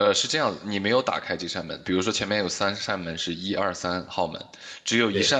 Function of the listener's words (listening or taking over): listening